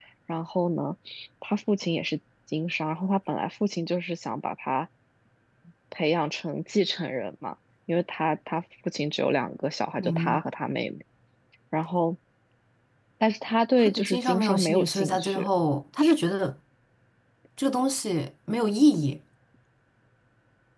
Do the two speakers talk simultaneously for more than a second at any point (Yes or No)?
Yes